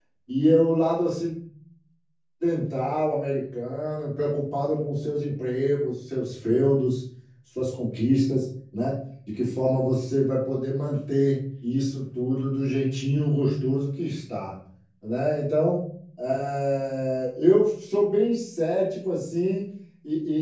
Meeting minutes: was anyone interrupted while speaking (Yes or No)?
No